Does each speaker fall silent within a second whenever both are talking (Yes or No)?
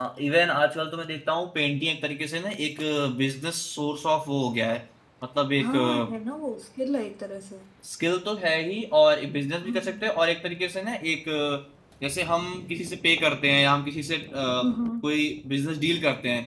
Yes